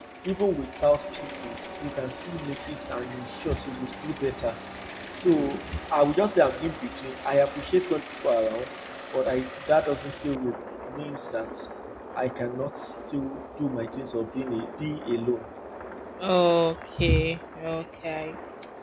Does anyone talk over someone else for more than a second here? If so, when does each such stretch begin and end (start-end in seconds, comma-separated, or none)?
none